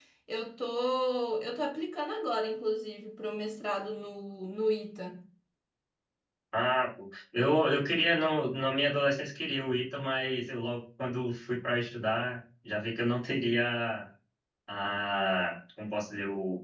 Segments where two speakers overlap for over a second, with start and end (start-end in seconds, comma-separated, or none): none